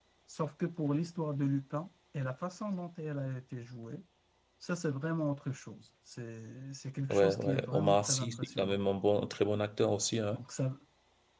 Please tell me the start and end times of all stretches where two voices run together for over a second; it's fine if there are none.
7.1-8.8

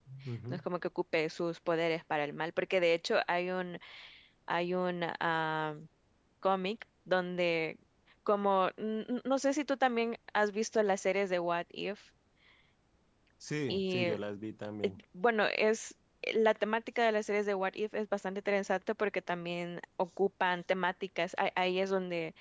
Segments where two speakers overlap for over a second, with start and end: none

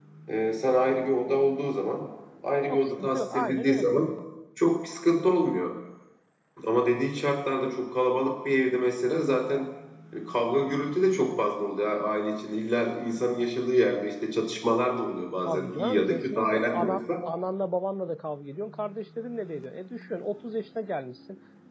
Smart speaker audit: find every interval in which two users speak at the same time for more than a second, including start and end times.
2.7-3.9, 15.4-17.0

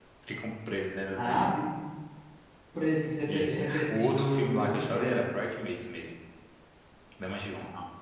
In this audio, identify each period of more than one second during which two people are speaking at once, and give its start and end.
3.3-5.2

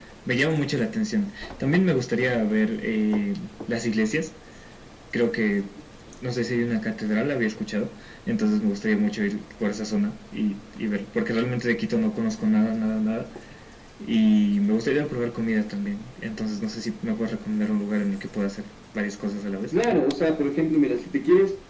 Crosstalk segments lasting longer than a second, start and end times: none

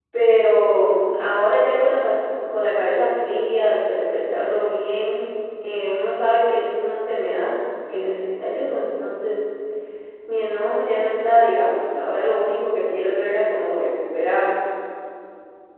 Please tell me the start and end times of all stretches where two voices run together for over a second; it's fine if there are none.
none

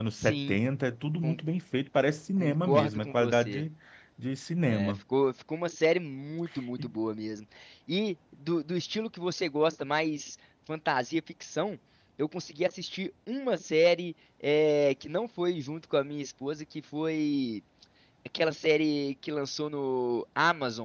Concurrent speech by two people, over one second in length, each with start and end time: 2.4-3.6

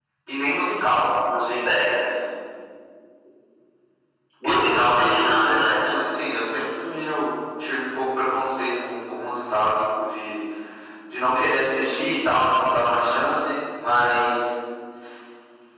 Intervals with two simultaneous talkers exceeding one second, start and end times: 4.4-5.9

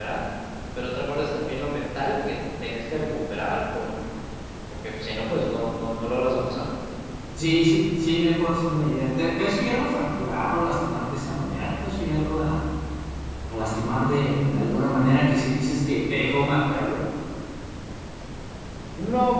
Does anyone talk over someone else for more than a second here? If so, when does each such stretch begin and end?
none

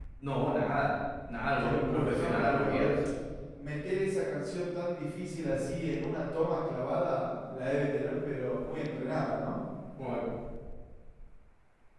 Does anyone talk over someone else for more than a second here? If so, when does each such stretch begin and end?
1.6-2.9

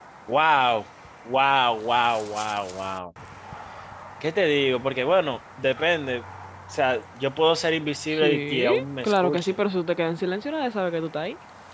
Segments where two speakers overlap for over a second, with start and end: 8.1-9.6

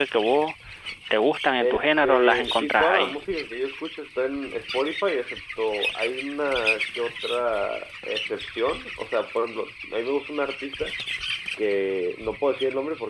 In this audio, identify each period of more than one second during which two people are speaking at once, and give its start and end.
1.6-3.2

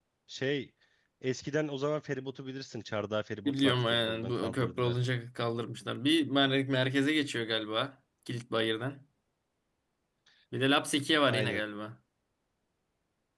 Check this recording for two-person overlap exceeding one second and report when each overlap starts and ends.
3.5-5.0

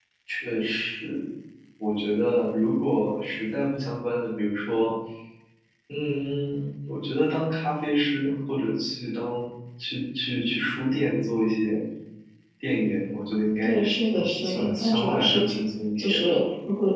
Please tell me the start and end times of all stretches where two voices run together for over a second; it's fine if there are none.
13.6-15.4

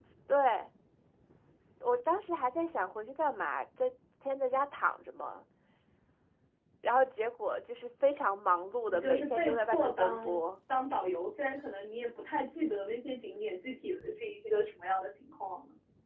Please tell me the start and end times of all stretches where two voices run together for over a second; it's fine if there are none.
8.9-10.2

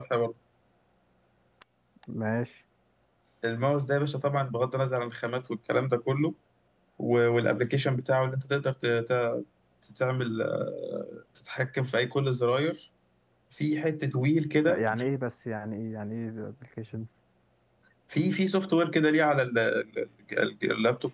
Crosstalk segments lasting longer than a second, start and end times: none

